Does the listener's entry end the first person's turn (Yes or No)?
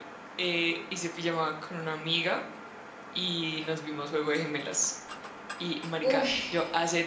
No